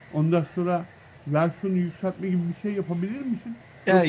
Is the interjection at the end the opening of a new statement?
No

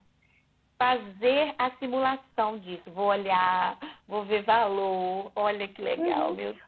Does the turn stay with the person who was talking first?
No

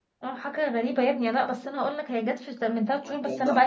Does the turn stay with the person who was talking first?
No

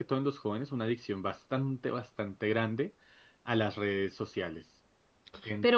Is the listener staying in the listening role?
No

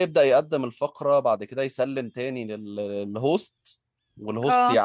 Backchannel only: Yes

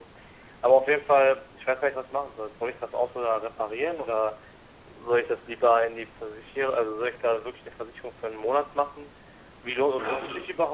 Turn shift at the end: No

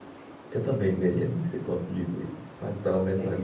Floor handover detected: No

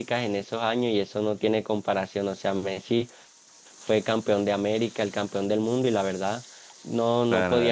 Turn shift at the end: Yes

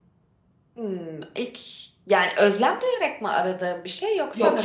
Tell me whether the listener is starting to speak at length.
Yes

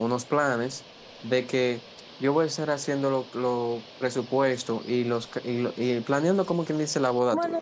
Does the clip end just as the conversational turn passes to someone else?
Yes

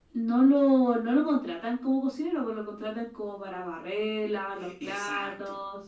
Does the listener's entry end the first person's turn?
No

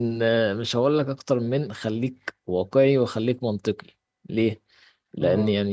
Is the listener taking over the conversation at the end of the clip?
No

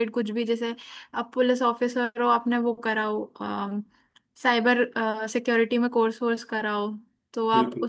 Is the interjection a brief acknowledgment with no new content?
Yes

